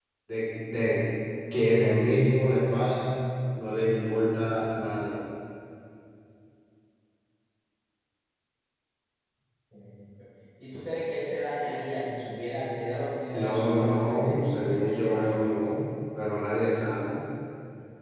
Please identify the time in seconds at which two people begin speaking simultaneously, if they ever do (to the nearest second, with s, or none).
13 s